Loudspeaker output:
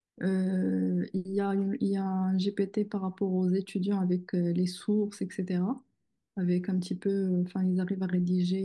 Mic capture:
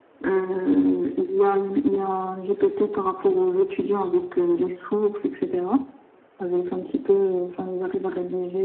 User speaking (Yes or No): No